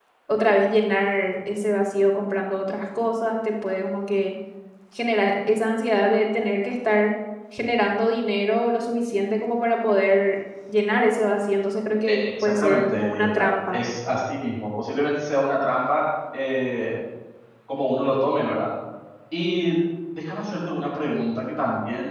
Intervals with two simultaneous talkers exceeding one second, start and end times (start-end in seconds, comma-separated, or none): 12.1-13.8